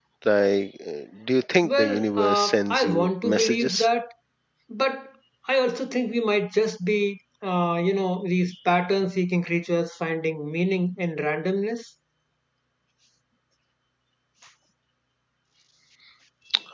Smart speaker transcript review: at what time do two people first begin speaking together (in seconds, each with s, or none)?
1.6 s